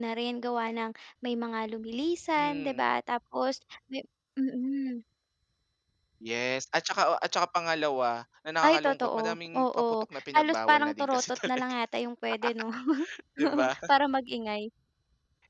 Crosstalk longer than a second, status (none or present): present